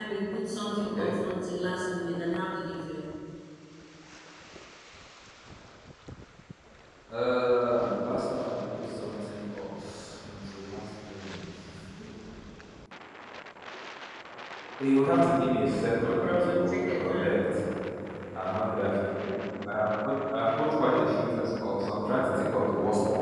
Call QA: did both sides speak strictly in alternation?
No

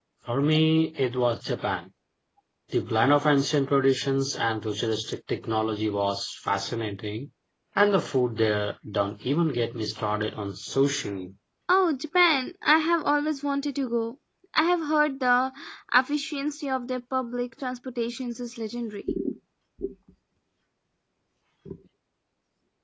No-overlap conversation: Yes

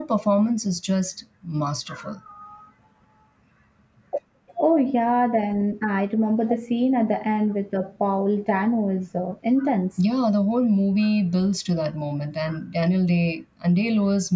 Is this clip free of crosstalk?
Yes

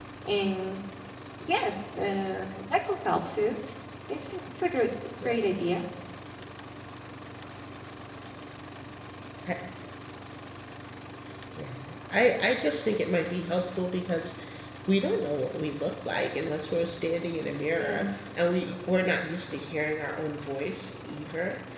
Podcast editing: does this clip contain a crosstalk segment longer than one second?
No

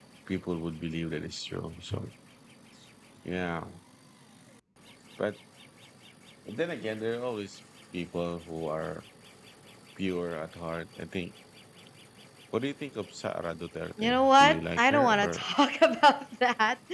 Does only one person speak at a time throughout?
No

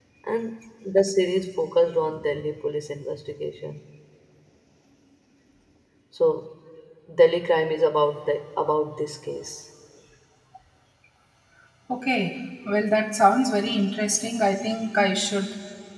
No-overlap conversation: Yes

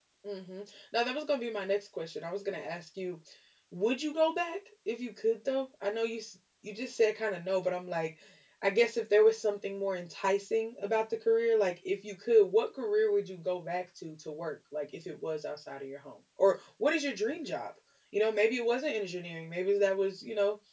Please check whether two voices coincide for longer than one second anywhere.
No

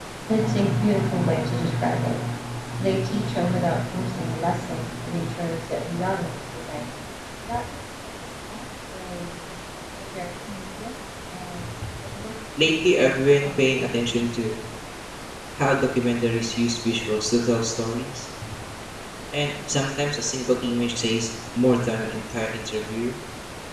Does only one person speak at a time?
No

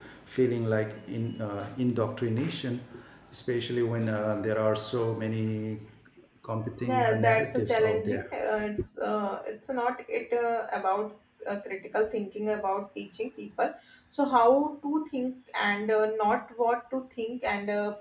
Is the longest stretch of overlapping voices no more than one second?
No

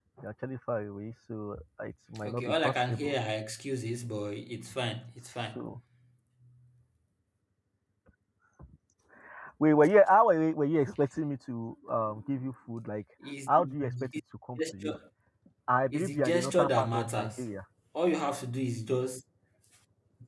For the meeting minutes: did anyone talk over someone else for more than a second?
Yes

